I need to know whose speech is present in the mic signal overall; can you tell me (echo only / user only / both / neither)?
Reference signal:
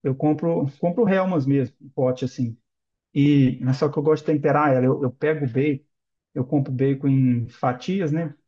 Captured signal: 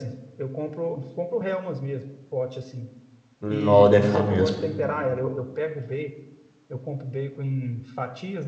both